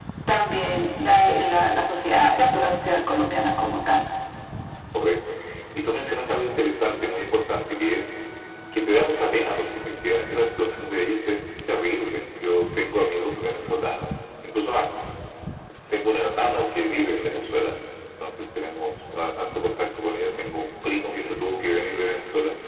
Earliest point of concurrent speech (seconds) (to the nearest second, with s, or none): none